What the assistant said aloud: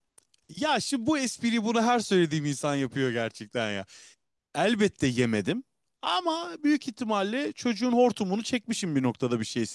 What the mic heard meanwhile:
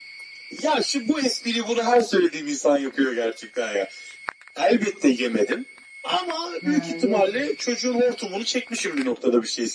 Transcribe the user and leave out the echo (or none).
Ha, yazık.